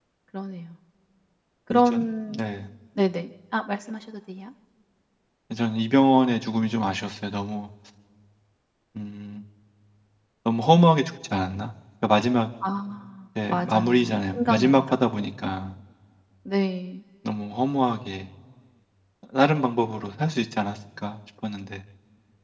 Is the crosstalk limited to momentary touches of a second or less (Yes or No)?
No